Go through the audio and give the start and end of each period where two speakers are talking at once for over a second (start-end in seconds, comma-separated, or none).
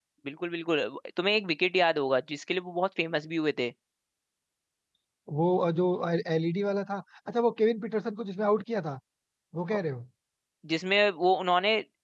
none